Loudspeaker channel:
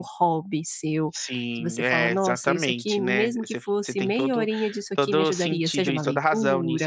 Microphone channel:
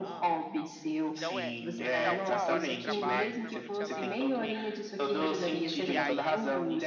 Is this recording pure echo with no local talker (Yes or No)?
No